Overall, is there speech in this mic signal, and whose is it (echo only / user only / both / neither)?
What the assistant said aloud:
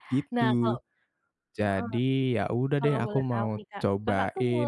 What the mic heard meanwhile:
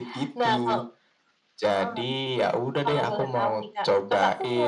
echo only